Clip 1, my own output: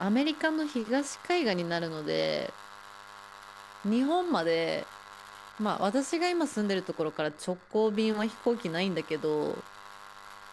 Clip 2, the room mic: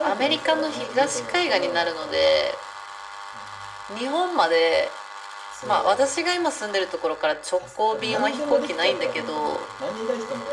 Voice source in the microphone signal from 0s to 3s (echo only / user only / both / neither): both